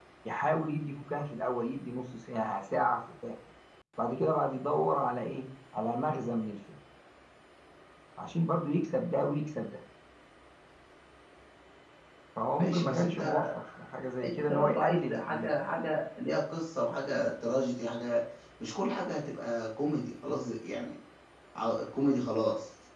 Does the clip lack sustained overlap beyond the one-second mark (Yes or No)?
No